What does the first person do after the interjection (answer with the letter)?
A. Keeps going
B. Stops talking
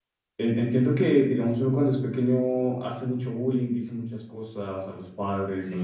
B